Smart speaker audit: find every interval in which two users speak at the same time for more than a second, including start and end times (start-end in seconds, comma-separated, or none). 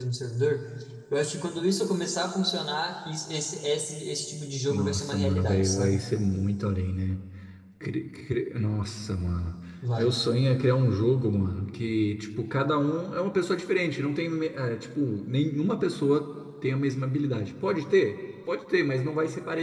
4.7-6.0